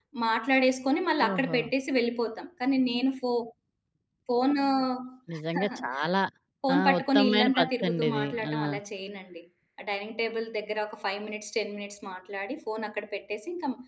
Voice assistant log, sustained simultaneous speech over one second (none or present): present